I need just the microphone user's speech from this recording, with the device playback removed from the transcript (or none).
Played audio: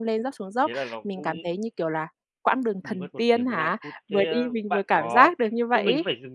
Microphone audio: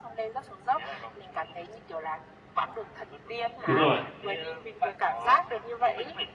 Đúng rồi.